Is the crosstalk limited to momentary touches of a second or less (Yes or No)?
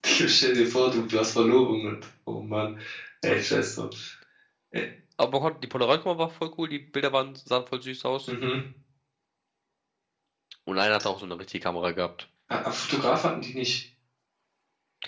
Yes